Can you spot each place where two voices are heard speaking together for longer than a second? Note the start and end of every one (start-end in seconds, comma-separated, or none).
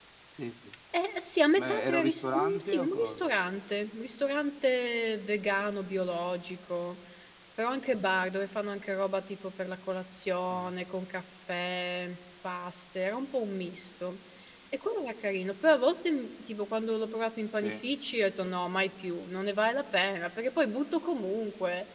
1.6-3.3